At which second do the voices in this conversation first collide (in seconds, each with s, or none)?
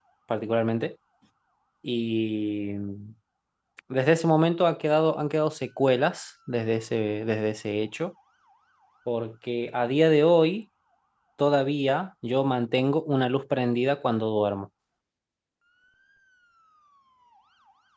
none